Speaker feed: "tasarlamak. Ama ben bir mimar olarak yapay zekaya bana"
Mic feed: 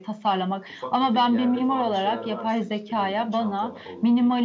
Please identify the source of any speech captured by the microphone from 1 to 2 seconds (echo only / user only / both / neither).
both